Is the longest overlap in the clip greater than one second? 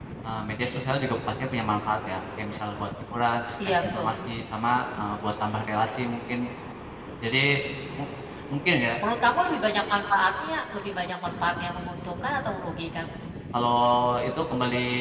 No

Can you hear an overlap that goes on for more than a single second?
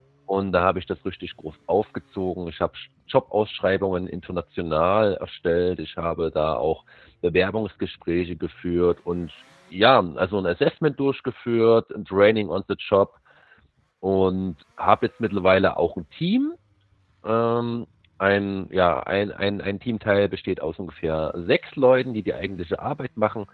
No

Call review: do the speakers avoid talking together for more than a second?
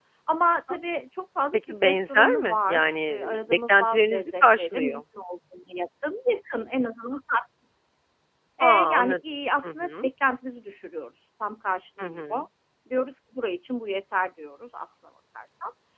No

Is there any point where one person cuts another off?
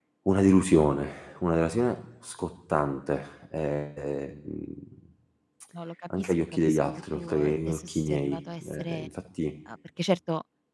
Yes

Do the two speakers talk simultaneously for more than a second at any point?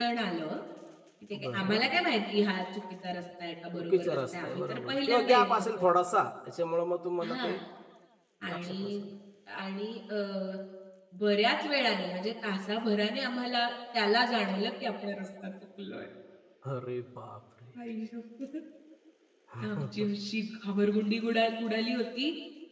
Yes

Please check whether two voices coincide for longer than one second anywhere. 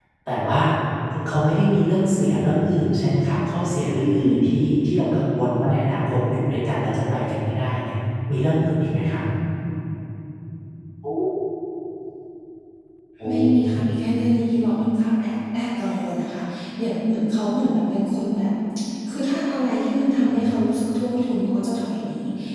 No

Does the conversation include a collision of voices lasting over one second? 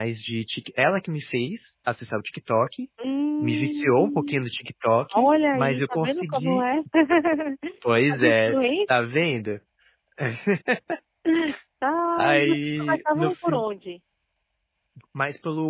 Yes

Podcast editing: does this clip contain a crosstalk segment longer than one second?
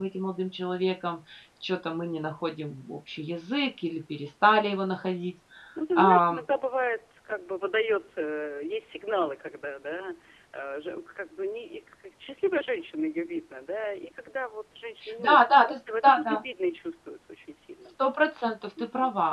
Yes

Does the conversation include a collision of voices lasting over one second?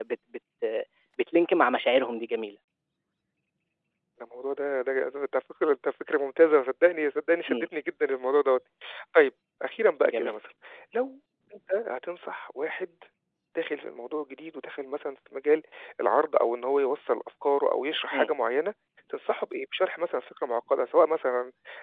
No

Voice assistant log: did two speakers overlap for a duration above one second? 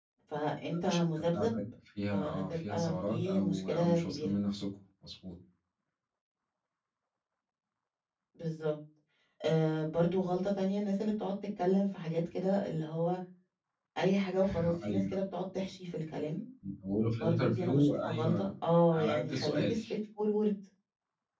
Yes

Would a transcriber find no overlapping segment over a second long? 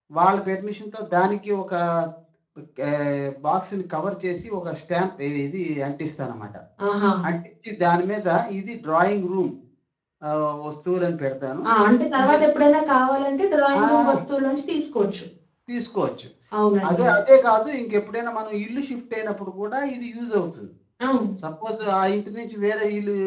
Yes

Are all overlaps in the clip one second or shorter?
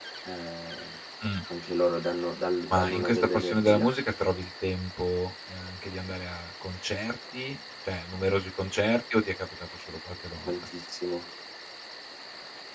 No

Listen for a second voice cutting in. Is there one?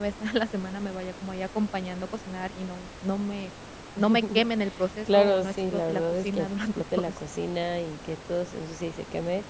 Yes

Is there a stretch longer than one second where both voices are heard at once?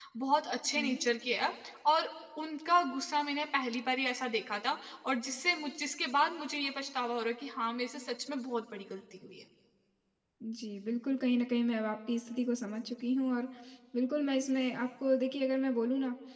No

